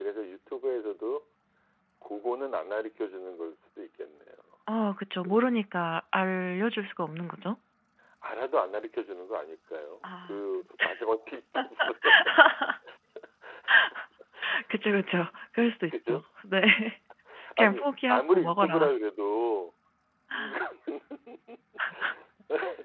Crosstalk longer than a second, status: present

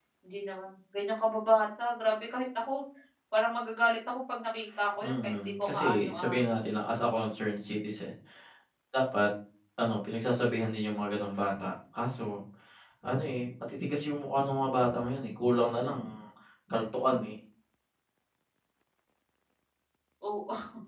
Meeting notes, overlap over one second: present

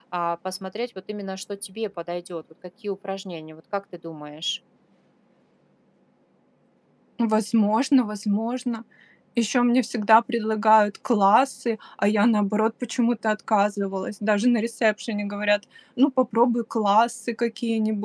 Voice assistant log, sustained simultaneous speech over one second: none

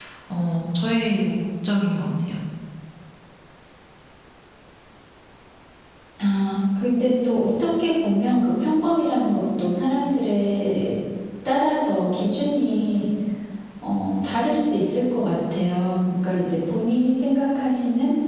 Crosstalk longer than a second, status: none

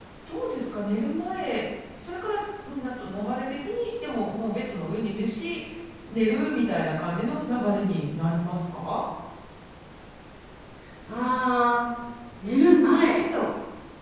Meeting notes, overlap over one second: none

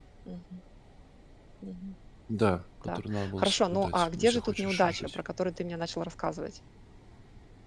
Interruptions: present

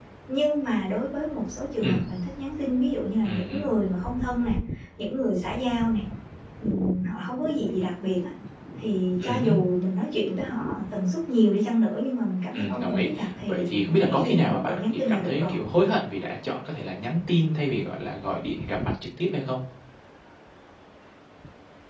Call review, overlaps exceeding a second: present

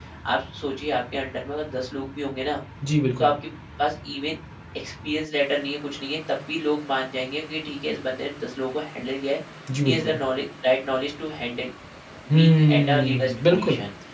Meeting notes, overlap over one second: present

